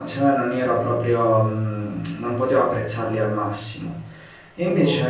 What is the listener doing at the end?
listening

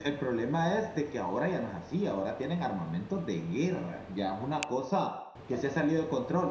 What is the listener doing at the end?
listening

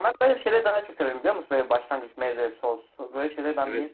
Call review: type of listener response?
taking over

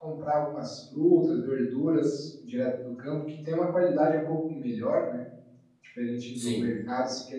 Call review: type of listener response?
listening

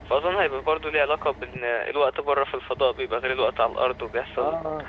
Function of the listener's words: taking over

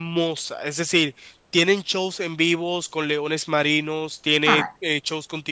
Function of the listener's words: listening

